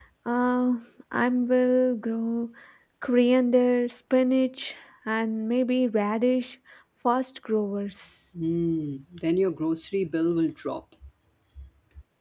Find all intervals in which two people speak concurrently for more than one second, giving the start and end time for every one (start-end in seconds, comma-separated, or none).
none